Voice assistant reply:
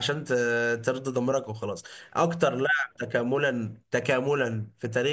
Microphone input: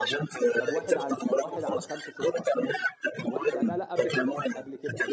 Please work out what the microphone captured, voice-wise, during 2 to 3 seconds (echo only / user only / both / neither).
both